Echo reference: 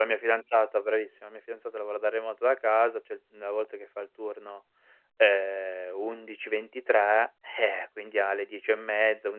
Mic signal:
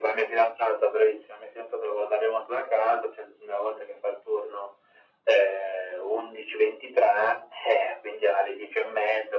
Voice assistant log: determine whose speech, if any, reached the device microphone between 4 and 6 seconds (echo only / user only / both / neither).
echo only